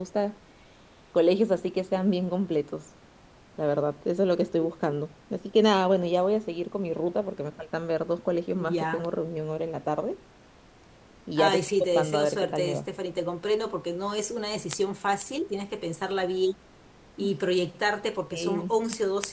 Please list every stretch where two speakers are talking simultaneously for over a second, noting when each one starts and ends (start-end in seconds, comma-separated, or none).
11.4-12.8